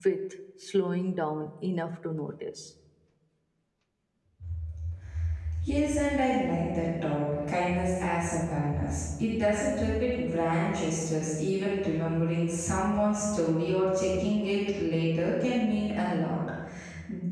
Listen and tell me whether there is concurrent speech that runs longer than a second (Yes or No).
No